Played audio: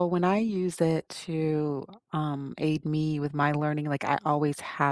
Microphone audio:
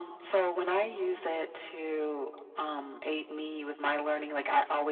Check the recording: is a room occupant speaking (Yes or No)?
No